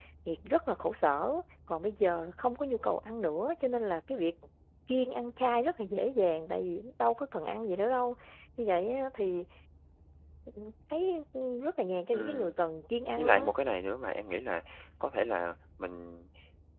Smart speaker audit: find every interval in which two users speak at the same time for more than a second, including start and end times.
none

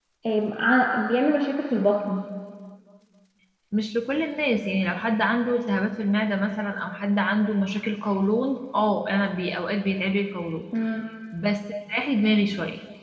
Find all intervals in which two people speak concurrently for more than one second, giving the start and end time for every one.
none

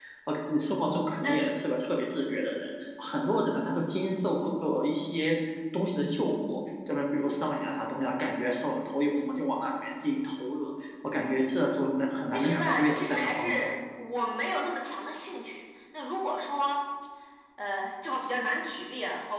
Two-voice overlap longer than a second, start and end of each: 12.3-13.6

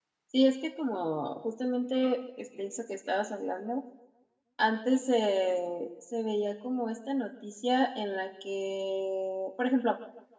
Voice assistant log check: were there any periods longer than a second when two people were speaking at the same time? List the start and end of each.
none

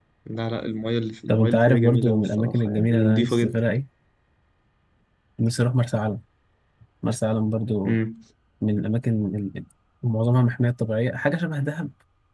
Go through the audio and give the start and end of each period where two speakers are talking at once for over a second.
1.3-3.5

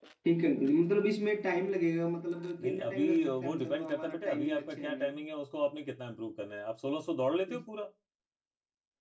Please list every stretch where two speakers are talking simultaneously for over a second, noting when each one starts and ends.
2.6-5.2

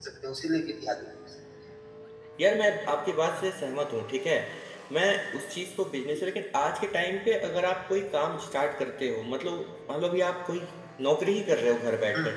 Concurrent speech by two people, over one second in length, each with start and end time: none

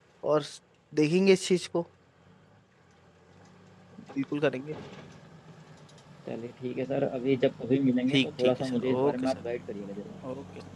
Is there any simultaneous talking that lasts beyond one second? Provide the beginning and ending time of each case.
8.1-9.4

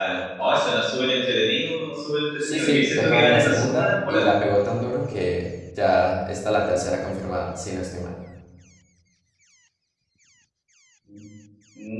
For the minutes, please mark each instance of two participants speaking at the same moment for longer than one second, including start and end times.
2.4-4.3

